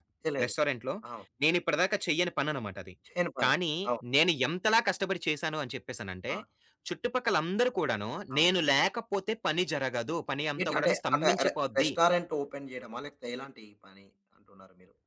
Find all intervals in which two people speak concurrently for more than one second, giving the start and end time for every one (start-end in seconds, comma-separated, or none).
10.6-11.9